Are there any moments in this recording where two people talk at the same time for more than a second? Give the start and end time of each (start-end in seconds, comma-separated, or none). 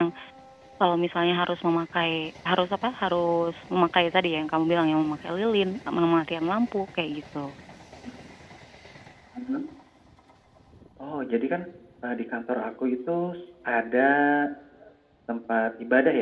none